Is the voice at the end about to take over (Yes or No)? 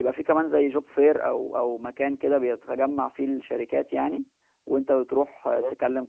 No